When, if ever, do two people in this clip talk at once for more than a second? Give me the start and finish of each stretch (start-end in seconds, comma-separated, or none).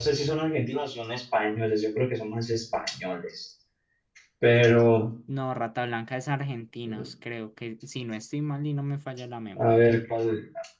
none